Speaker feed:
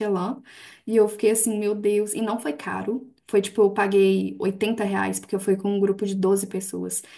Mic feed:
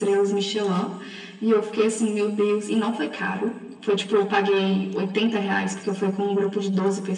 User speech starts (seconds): none

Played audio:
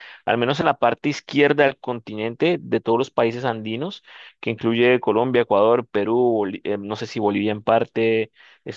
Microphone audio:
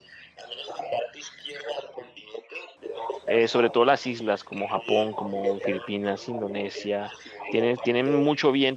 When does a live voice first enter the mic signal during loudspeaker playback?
3.3 s

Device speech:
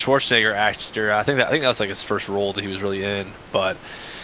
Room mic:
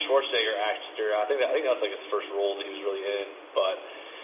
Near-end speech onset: none

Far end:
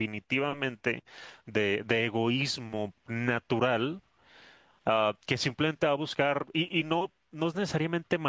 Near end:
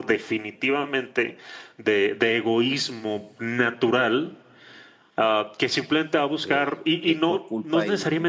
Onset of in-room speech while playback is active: 6.4 s

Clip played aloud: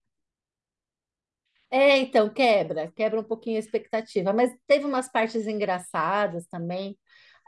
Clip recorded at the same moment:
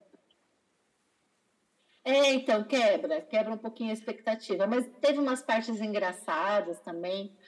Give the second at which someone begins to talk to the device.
none

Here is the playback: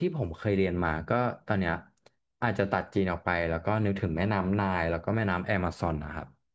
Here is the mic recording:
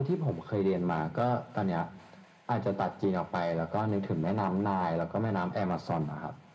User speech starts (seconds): none

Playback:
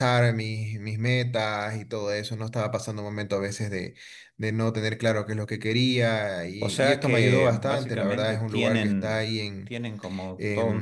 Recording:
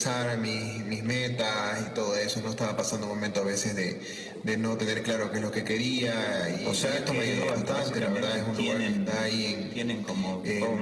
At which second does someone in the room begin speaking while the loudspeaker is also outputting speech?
none

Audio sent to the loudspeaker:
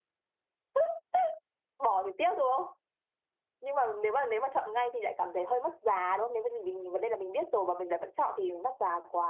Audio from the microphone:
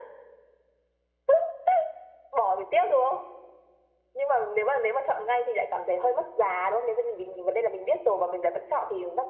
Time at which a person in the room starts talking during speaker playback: none

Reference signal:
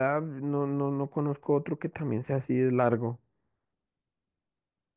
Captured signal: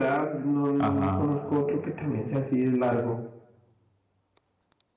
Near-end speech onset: 0.8 s

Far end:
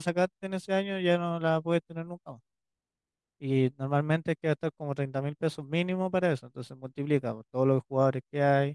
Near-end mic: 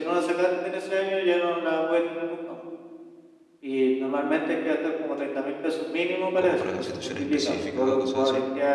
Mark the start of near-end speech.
6.3 s

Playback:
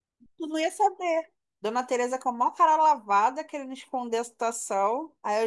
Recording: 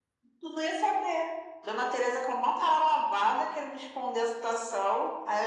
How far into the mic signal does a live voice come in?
none

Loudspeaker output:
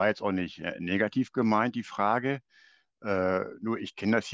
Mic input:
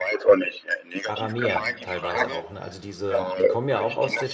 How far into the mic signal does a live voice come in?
1.0 s

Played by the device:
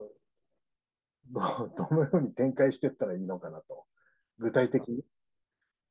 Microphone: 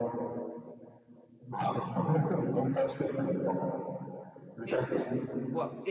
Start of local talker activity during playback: 4.7 s

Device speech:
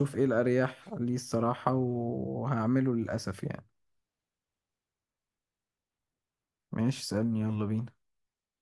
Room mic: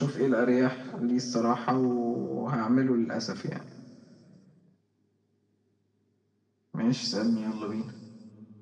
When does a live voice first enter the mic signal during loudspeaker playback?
none

